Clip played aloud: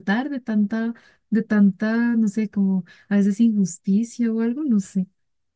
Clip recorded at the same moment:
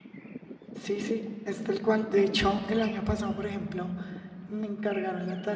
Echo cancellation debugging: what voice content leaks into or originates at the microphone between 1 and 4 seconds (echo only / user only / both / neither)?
user only